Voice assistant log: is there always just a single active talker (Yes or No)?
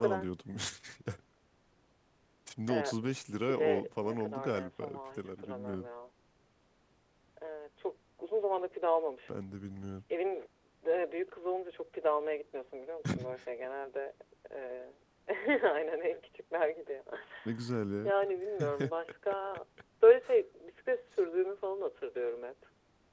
No